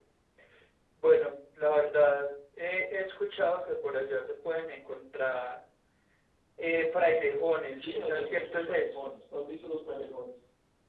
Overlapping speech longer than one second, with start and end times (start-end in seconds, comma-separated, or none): 7.8-9.1